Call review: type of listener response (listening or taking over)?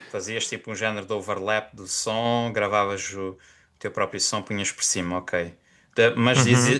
listening